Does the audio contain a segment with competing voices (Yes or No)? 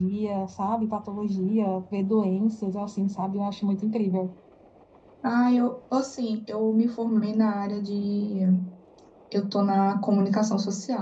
No